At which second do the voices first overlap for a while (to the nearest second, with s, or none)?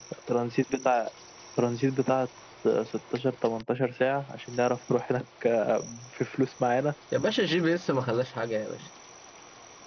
none